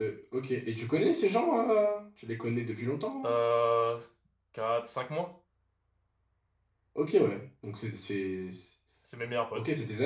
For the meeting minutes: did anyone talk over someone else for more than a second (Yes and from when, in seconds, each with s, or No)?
No